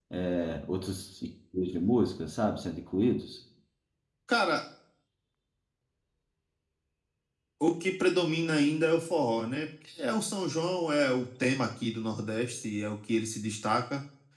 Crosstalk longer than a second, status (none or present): none